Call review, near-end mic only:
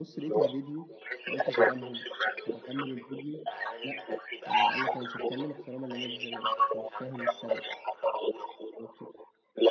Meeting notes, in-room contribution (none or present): present